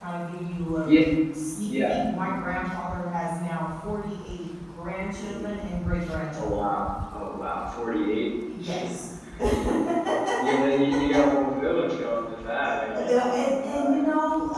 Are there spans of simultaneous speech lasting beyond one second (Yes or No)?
Yes